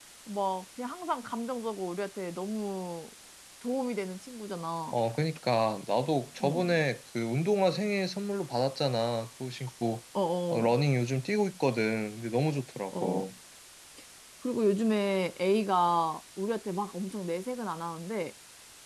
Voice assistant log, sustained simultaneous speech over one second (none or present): none